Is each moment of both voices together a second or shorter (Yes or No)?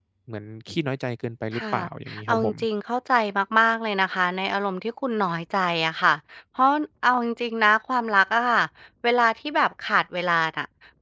Yes